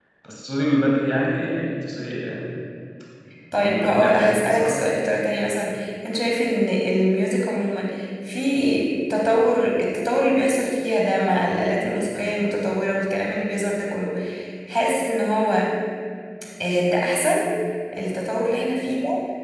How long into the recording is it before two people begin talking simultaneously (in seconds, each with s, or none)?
3.6 s